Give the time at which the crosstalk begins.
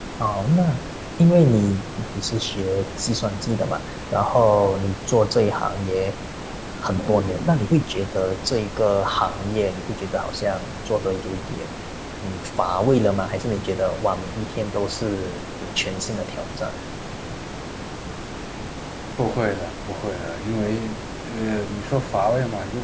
none

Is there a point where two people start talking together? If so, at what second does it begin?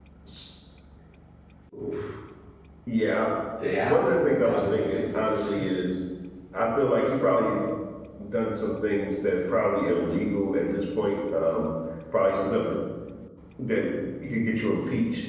3.8 s

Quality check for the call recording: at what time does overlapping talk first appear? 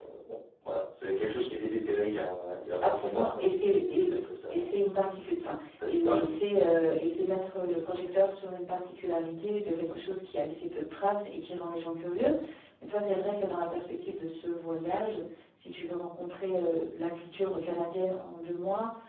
2.8 s

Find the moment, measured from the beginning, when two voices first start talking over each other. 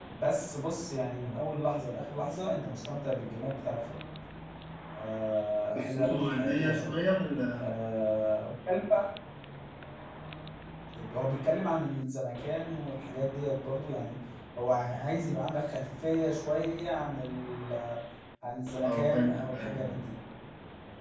5.7 s

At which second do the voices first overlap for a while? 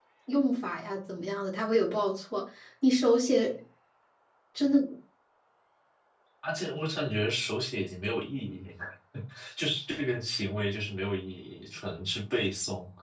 none

